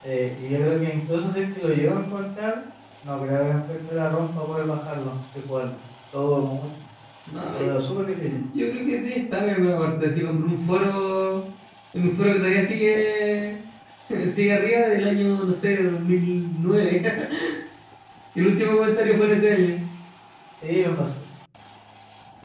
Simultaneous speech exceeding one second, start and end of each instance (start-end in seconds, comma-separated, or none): none